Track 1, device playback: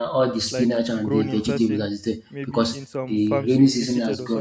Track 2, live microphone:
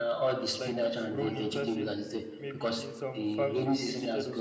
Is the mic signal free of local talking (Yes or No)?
Yes